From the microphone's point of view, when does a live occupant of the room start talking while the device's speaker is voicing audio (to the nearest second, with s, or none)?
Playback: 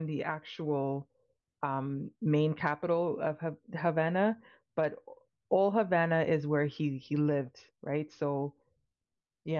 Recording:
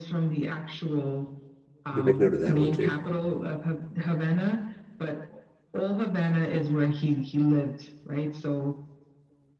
2 s